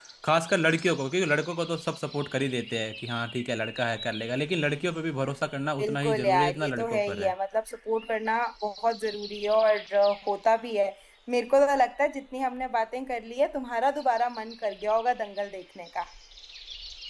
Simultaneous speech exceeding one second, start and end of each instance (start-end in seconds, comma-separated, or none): 5.8-7.3